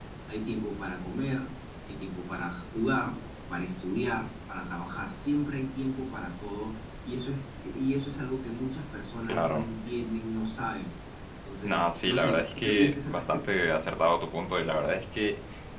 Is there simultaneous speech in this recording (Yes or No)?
Yes